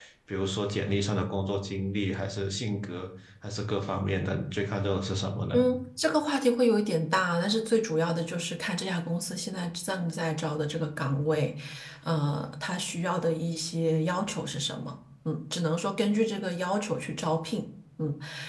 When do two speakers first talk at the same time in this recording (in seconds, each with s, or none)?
none